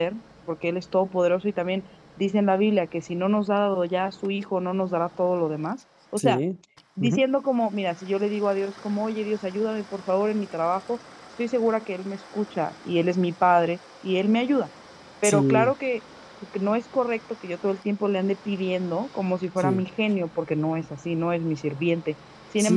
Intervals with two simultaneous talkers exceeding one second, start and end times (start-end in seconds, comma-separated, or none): none